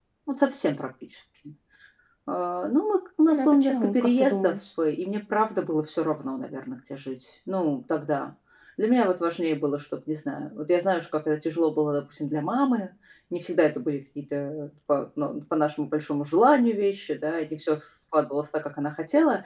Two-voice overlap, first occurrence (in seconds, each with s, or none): 3.3 s